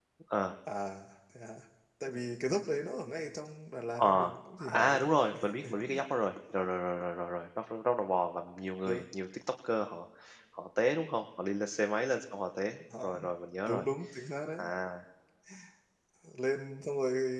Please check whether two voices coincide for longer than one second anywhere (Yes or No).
Yes